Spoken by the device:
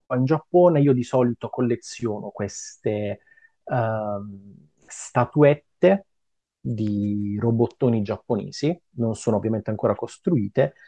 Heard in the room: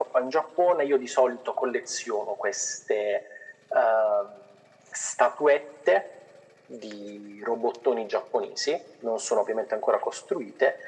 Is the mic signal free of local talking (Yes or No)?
Yes